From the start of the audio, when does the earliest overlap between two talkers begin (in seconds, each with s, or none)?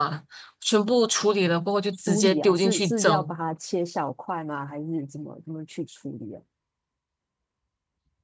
1.9 s